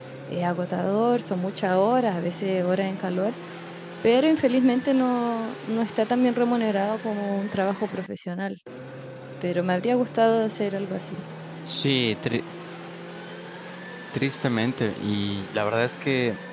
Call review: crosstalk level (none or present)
none